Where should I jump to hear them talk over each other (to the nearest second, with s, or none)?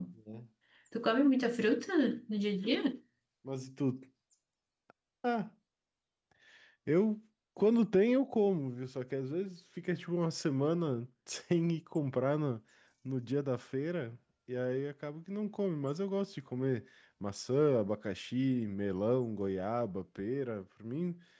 none